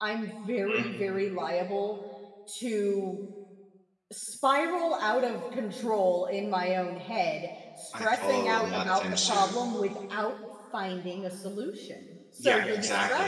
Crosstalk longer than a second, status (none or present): present